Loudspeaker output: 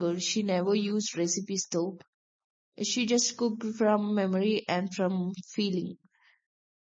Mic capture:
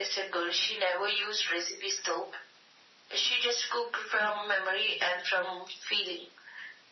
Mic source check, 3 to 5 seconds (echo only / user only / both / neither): echo only